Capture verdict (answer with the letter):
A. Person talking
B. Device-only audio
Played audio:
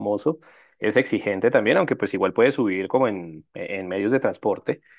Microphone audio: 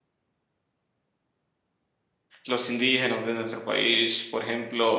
A